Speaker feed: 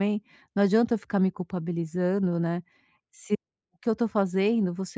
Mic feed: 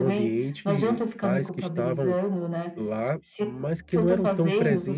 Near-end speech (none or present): present